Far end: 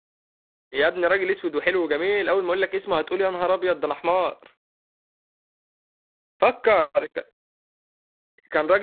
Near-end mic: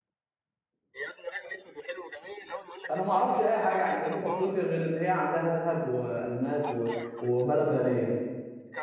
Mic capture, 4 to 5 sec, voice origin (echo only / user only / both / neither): both